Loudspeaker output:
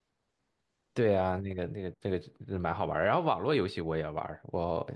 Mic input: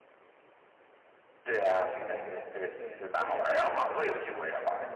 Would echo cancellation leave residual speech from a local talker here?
Yes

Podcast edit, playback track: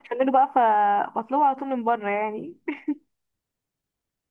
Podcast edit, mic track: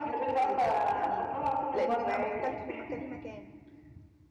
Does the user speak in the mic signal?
Yes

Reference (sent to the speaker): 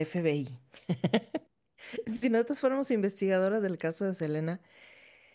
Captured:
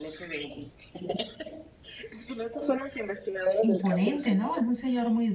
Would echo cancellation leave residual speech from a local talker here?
Yes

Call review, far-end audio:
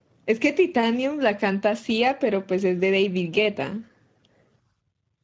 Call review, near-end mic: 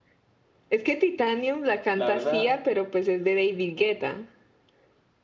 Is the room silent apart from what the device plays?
No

